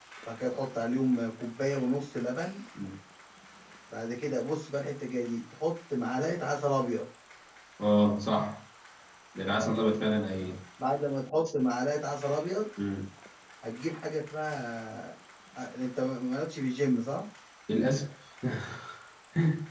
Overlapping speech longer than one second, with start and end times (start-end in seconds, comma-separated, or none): none